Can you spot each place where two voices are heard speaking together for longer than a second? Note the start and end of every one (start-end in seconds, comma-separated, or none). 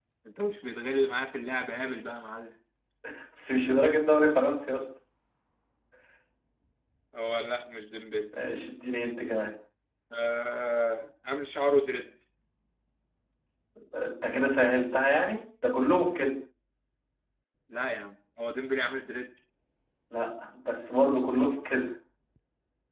none